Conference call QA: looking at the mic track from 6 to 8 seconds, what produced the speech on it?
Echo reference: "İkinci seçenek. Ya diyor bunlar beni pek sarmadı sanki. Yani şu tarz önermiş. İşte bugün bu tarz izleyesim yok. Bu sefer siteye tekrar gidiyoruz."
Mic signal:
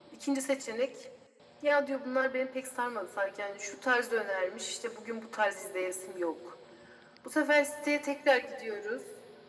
echo only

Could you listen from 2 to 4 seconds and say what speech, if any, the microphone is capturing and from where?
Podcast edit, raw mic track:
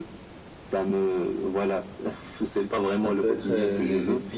both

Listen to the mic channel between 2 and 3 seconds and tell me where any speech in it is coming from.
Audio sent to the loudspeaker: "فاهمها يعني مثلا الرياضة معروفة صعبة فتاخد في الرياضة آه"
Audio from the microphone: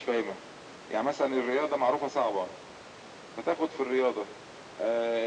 echo only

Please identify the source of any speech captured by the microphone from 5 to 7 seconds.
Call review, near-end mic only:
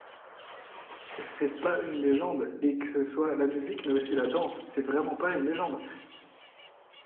user only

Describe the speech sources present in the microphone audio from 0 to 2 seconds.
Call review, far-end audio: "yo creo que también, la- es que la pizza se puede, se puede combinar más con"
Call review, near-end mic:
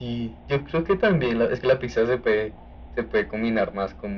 echo only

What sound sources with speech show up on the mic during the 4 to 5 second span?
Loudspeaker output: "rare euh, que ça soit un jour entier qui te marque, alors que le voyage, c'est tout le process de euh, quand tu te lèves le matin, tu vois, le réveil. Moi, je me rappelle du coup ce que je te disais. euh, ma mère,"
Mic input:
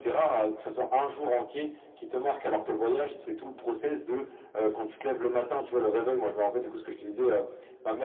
echo only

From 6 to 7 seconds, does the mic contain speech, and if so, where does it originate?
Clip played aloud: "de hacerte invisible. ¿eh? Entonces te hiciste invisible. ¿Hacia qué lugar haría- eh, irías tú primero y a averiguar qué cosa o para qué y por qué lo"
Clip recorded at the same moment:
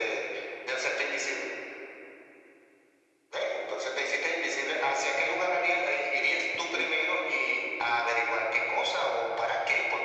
both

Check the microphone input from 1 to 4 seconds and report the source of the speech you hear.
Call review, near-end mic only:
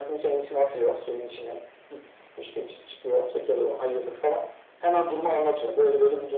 echo only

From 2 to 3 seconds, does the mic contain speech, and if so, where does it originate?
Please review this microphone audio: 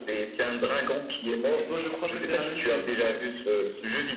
both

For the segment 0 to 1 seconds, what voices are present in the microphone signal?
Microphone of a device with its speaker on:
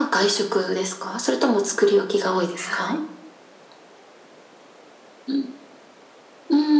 echo only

